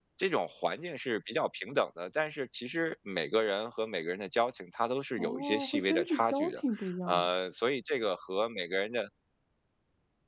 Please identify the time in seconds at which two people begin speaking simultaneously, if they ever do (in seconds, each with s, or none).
5.2 s